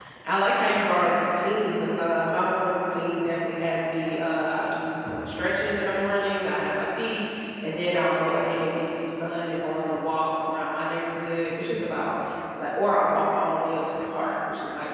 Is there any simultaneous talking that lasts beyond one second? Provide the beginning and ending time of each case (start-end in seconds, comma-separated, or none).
none